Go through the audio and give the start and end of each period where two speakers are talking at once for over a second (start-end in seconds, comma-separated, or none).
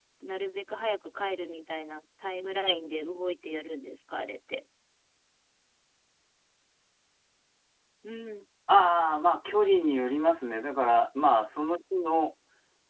none